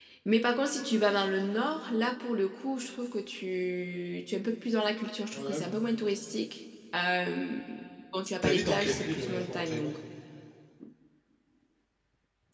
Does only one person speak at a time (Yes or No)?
No